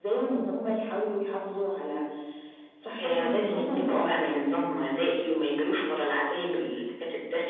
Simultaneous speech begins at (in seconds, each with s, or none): 3.0 s